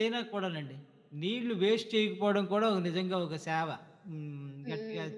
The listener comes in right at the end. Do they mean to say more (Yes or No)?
Yes